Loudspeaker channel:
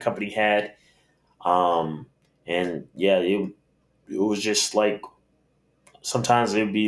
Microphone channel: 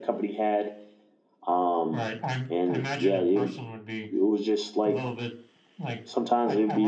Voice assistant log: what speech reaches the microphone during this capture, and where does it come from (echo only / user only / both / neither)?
both